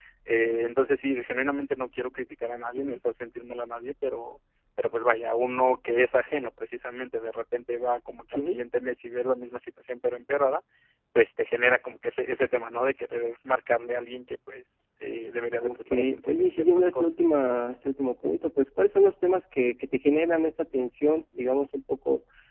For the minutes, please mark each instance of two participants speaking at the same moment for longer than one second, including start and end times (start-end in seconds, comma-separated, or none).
15.6-17.1